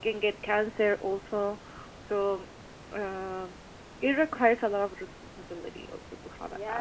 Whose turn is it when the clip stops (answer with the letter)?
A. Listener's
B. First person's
A